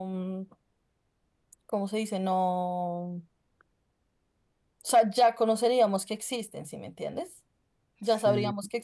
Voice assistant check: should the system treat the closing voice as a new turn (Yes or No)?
No